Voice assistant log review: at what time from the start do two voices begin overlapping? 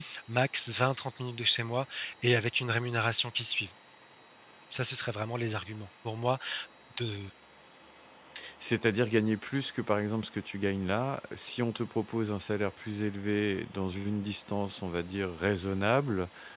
none

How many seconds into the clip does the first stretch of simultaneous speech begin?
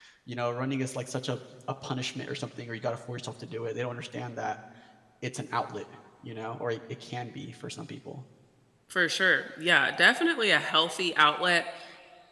none

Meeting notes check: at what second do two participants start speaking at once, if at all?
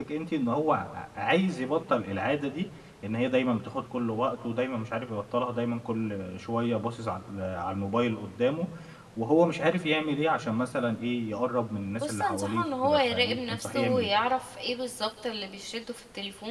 12.0 s

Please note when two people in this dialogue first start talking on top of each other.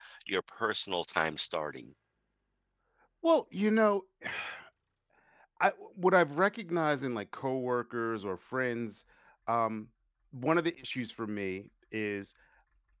none

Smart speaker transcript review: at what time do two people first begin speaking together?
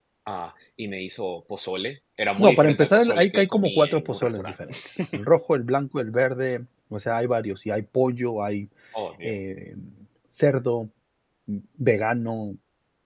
2.4 s

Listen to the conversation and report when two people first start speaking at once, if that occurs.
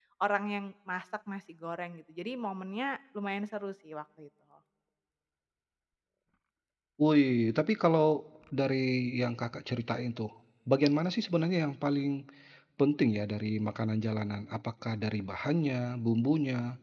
none

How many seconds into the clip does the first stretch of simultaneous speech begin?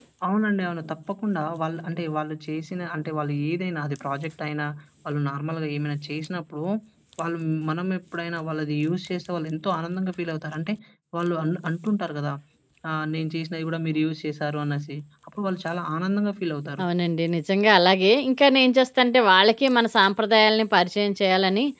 none

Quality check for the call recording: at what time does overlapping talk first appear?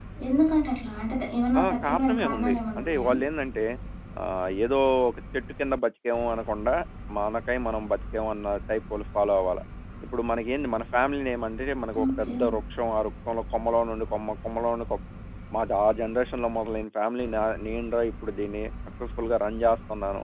1.6 s

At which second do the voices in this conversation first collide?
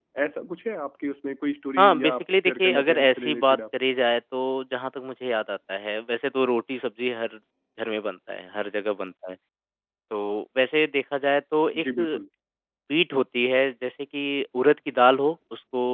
1.8 s

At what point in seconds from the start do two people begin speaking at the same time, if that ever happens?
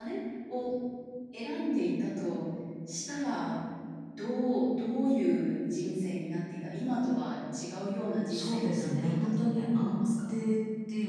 8.3 s

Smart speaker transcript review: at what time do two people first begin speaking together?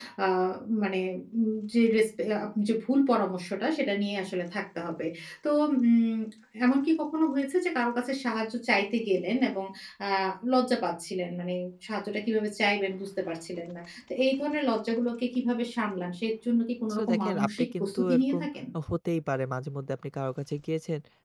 16.9 s

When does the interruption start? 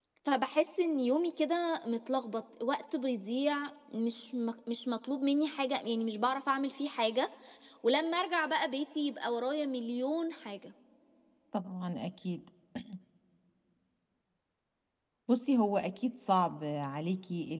none

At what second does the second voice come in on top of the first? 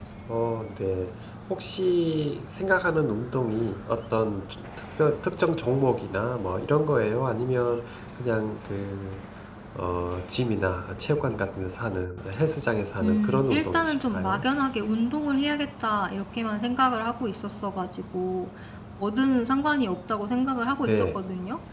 13.0 s

